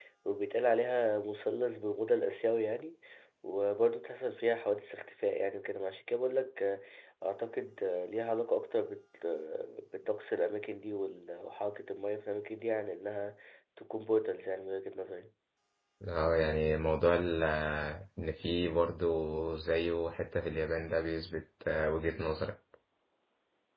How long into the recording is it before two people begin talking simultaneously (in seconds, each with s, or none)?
none